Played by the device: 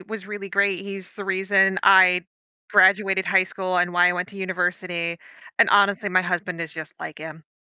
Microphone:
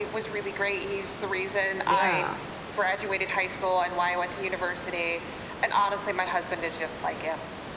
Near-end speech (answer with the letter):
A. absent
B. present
B